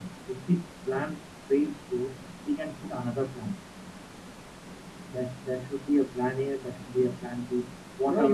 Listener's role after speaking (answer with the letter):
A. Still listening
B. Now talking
B